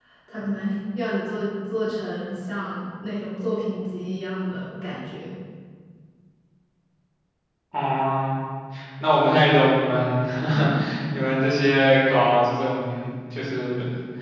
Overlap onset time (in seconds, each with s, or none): none